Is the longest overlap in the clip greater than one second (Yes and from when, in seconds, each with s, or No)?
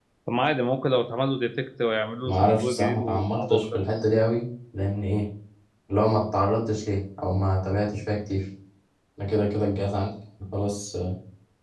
Yes, from 2.2 s